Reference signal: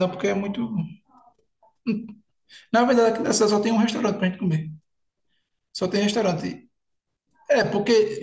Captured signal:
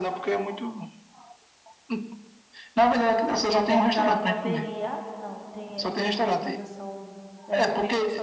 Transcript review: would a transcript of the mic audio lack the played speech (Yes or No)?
No